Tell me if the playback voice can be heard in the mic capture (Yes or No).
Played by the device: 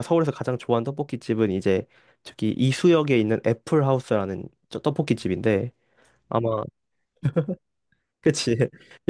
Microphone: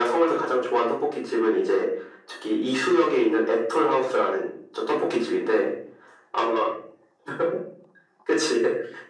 Yes